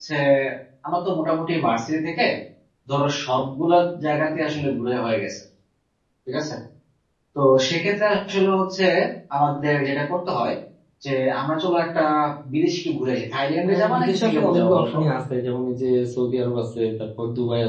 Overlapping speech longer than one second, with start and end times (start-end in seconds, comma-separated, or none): 13.7-15.0